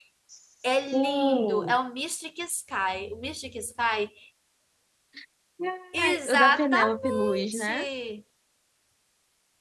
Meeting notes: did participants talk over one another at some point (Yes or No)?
Yes